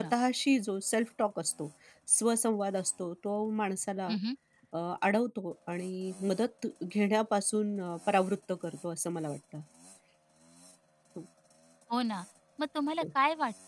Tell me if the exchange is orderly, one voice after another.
Yes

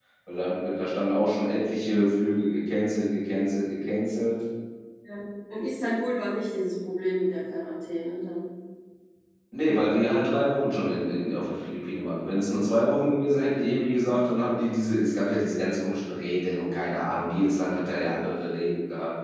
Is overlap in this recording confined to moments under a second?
Yes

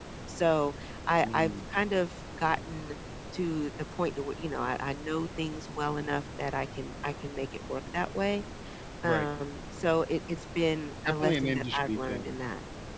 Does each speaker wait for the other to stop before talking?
No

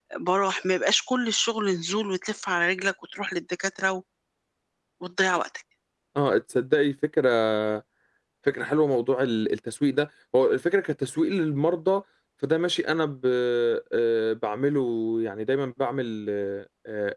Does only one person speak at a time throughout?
Yes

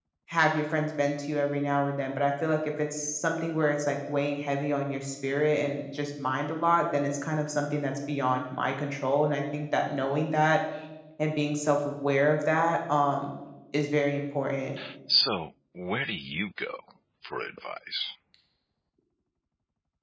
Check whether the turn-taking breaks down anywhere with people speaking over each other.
No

